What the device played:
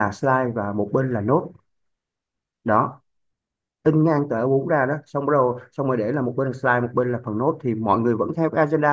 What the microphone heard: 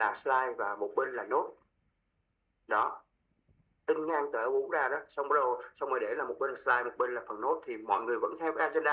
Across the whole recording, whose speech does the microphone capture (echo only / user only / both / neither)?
echo only